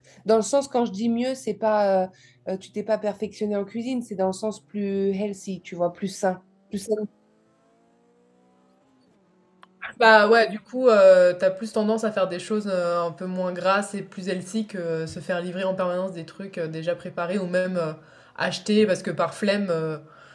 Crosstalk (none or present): none